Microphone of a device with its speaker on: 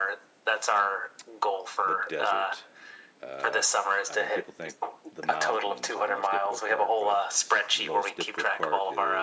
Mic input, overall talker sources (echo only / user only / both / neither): both